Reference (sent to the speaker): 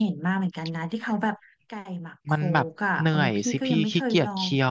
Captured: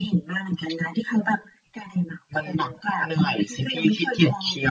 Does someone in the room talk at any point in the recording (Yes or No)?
No